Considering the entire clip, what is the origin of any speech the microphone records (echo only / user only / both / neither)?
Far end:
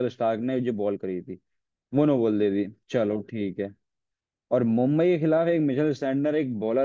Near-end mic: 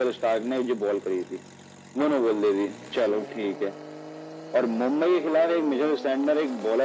echo only